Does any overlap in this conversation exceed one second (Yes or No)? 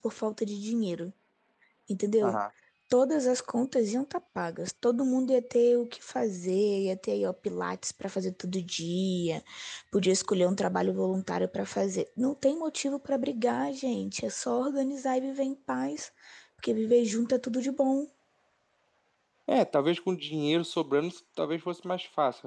No